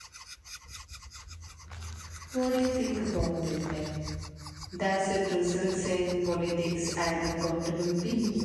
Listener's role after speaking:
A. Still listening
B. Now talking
B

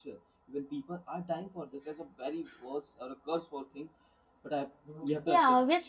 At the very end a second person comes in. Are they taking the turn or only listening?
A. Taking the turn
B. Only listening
A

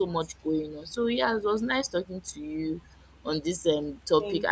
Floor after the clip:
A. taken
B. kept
B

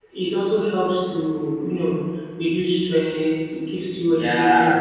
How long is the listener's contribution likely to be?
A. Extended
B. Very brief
A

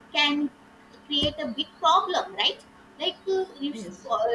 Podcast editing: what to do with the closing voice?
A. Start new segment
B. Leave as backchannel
B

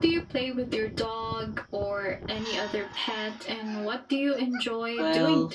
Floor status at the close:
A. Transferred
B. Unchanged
A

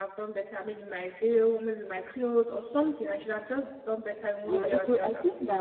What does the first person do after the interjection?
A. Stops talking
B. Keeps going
A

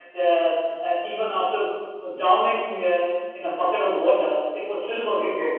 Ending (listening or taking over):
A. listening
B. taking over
B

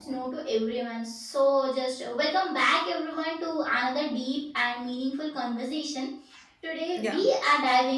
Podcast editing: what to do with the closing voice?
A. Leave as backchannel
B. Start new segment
A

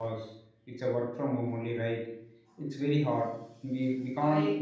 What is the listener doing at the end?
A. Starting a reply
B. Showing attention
B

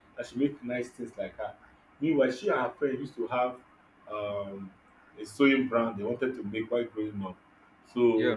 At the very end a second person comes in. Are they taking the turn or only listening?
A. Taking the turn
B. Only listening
B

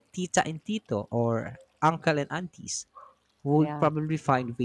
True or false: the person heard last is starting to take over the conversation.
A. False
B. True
A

